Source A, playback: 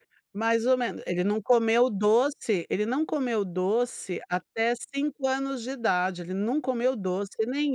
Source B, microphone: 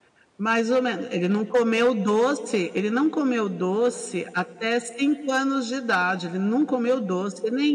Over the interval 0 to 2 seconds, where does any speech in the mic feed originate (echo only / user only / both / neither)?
echo only